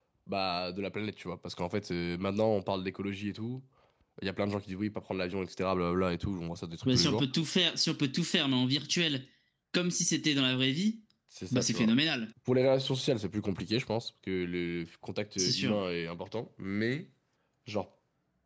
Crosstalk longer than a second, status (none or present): none